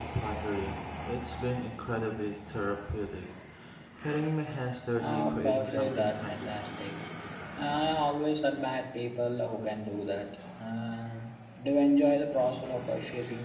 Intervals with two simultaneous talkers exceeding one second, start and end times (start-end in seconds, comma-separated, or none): 5.0-6.6